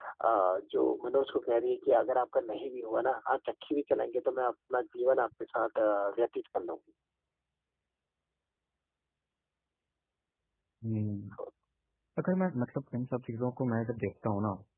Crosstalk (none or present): none